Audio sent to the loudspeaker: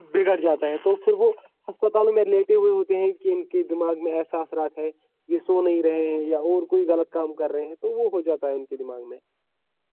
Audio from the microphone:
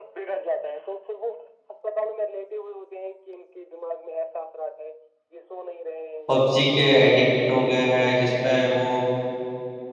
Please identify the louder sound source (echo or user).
user